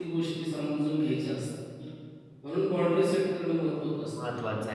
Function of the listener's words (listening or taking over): taking over